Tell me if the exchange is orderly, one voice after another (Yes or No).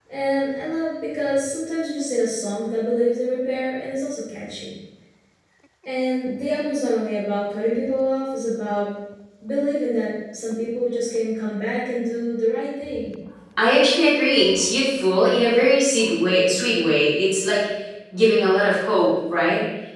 Yes